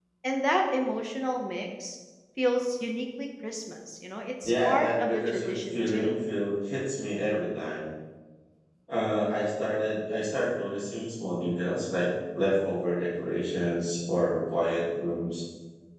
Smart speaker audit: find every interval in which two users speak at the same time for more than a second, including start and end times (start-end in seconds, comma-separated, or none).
4.5-6.2